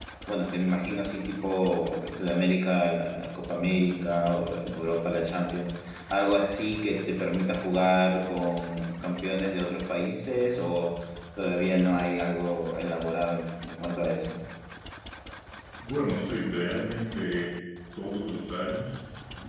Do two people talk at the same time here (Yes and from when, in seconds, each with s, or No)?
No